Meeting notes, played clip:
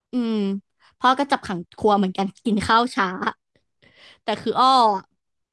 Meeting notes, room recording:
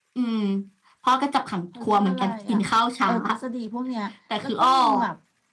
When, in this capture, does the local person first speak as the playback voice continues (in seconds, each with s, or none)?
1.7 s